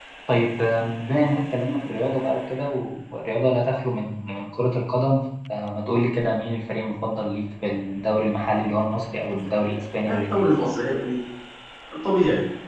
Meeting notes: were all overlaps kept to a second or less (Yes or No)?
Yes